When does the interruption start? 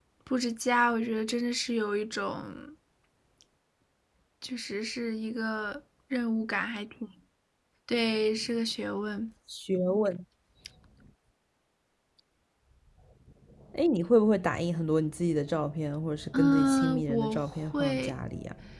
16.3 s

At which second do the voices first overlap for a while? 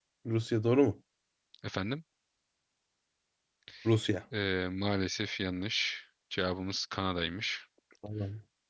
none

